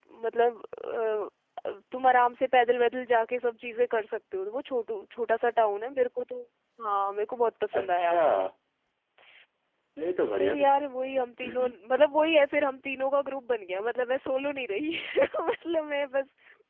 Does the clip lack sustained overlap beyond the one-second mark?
Yes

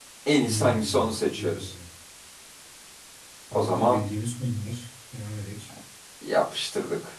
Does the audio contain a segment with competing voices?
Yes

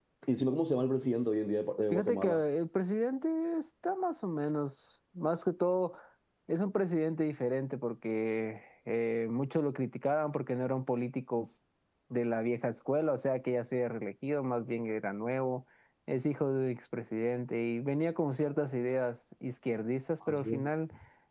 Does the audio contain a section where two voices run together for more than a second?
No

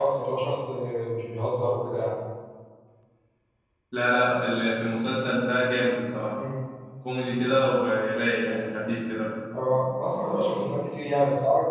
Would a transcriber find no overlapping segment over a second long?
Yes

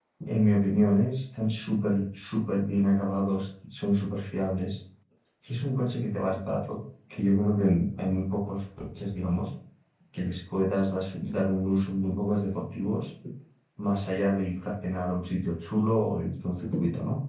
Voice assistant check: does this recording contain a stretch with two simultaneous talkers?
No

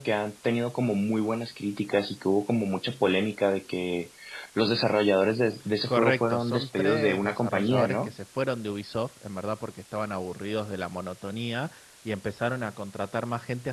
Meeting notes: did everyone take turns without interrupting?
No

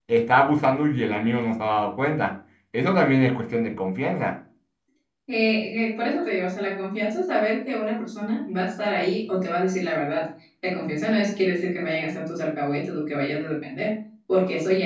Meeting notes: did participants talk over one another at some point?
No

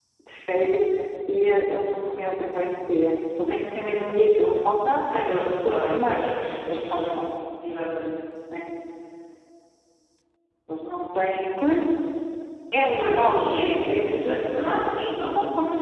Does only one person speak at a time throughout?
No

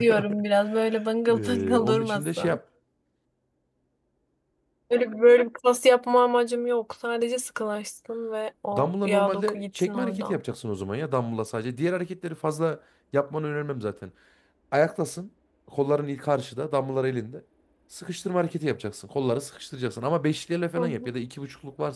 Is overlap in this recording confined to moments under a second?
No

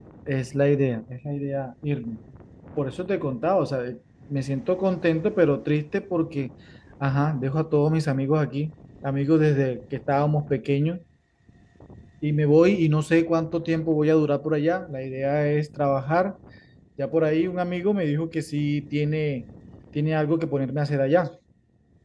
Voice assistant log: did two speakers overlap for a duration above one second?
No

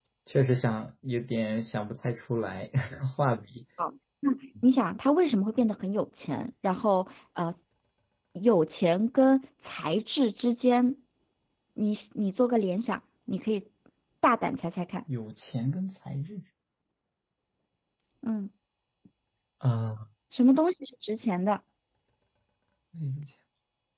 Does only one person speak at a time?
Yes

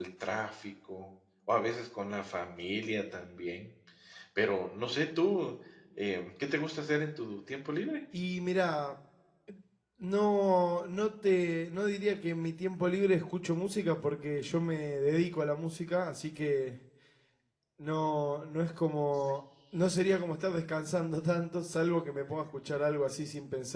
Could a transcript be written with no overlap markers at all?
Yes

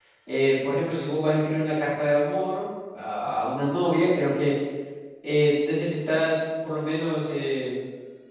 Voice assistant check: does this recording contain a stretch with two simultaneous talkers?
No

